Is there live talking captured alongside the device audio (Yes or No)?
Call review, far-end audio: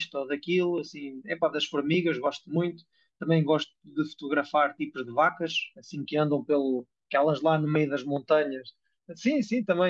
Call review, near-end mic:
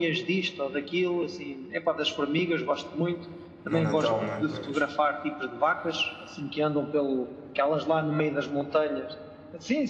Yes